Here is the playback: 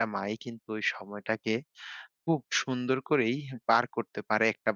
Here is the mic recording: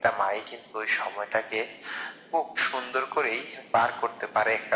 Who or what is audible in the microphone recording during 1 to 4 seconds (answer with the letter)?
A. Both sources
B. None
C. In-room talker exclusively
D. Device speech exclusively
D